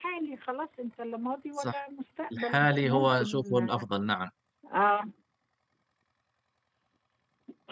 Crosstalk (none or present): present